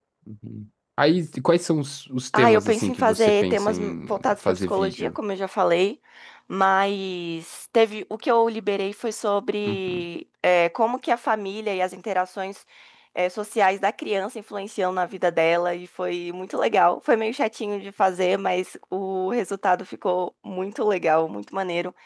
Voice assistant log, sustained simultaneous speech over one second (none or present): present